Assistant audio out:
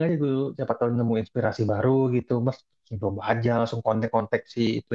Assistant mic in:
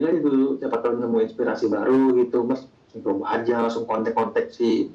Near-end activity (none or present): none